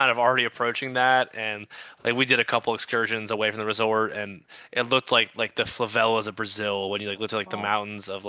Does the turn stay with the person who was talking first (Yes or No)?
Yes